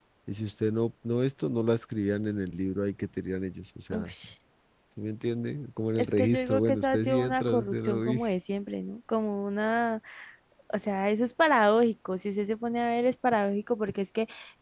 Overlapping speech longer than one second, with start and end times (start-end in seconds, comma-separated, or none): 6.0-8.2